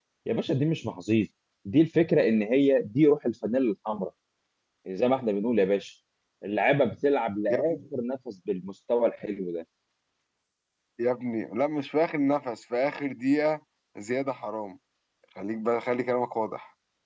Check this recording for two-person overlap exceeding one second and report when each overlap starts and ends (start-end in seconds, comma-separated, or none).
none